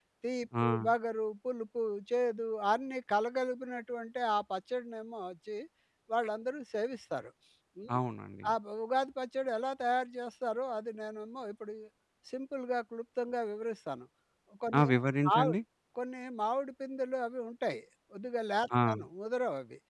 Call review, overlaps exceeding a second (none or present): none